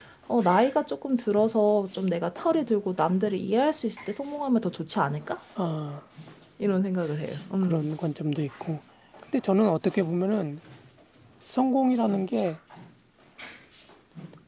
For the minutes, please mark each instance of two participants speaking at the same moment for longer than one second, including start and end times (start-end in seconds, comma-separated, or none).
none